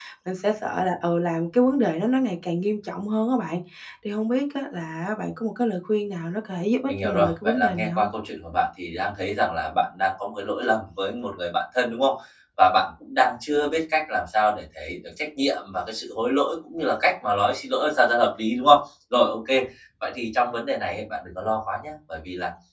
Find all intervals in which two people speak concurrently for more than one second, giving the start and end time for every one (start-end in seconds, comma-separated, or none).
6.9-8.1